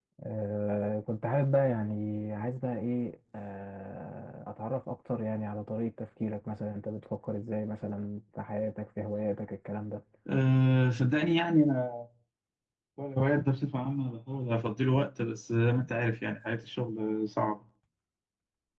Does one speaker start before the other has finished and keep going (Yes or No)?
No